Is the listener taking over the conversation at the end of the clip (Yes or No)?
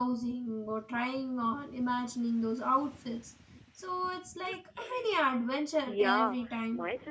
Yes